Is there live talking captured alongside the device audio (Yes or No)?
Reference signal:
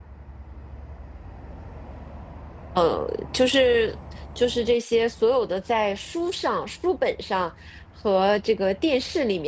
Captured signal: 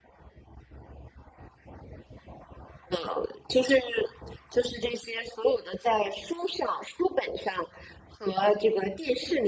No